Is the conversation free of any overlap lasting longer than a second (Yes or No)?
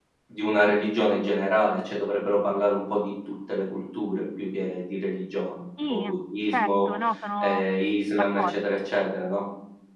Yes